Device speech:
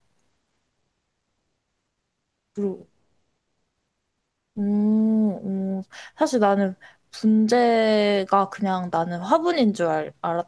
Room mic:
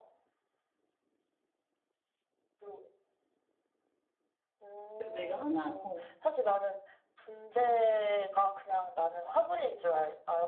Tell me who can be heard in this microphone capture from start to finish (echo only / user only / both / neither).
both